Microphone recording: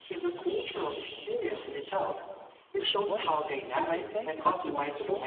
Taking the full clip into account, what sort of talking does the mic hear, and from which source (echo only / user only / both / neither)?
both